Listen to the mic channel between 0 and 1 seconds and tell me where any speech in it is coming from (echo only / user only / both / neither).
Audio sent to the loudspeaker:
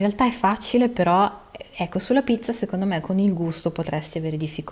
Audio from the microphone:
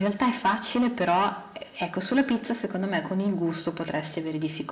echo only